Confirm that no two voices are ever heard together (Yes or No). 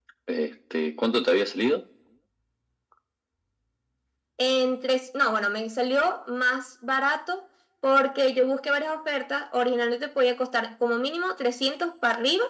Yes